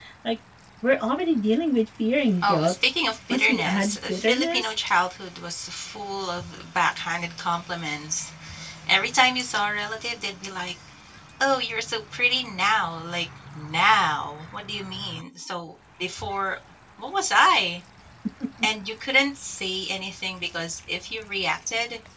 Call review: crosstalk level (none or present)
present